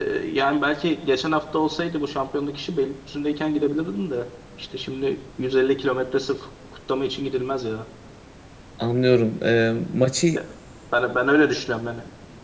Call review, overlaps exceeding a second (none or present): none